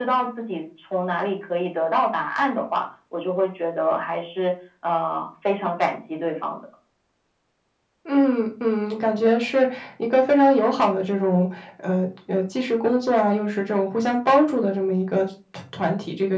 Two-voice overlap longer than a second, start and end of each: none

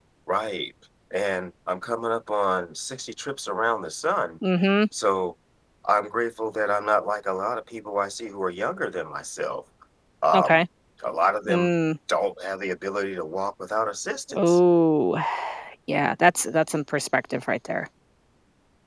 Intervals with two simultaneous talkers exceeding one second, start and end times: none

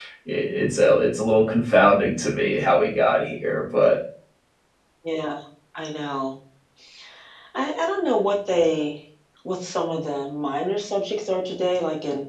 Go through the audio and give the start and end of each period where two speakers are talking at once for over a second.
none

